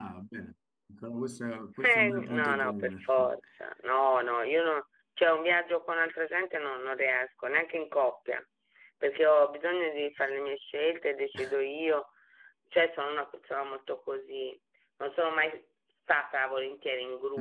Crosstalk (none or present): present